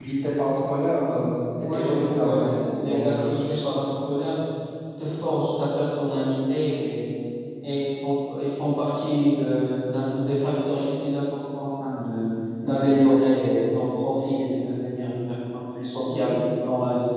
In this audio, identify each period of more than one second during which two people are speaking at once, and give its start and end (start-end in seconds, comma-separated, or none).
1.7-3.6